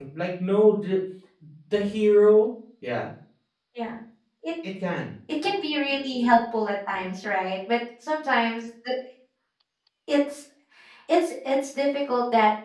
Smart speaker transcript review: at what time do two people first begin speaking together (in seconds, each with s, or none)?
none